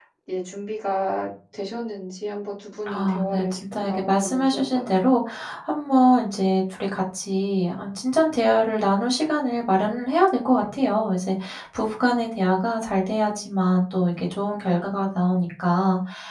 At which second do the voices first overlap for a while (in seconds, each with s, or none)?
2.9 s